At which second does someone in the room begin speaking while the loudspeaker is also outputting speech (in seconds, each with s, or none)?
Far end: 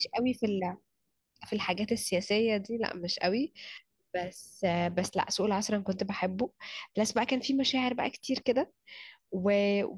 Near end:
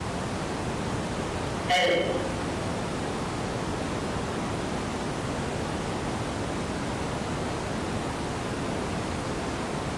1.7 s